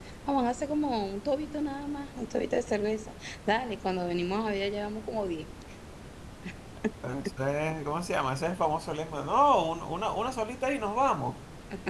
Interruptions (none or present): none